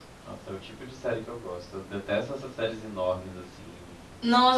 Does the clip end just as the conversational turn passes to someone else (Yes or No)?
Yes